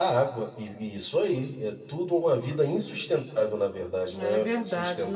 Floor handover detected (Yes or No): Yes